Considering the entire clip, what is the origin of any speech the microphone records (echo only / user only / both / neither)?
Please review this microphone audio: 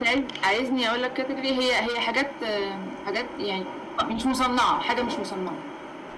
echo only